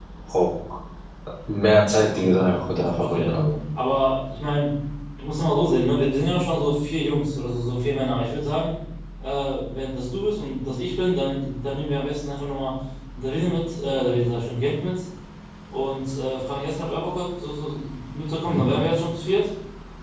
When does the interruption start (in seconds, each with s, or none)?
2.1 s